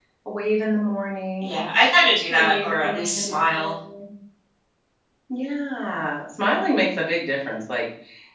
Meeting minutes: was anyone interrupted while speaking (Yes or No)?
Yes